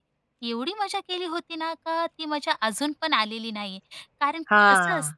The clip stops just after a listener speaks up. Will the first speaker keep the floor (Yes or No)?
Yes